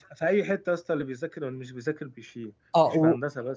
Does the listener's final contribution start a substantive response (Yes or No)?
Yes